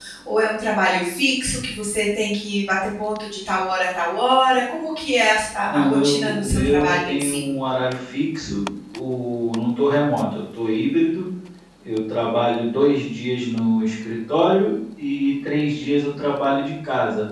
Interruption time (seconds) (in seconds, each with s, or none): 5.7 s